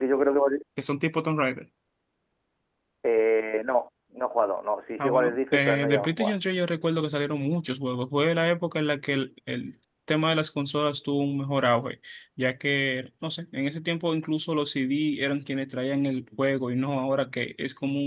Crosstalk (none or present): present